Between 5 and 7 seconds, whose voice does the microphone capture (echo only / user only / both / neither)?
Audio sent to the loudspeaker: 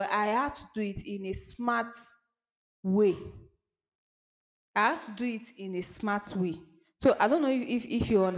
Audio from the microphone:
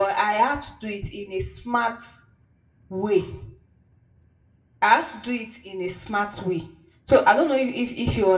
echo only